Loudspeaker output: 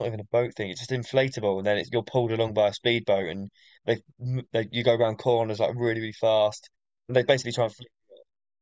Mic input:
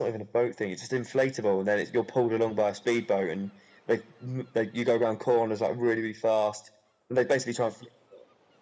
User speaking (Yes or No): No